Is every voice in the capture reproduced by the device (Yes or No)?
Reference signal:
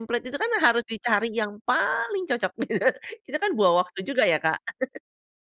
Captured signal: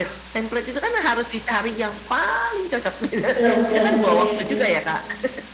No